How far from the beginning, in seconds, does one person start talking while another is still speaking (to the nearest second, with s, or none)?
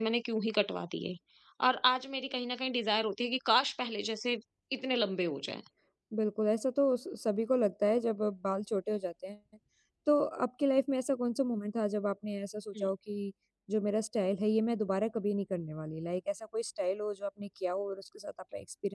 none